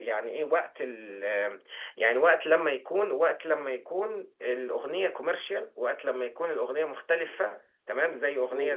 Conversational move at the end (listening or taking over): listening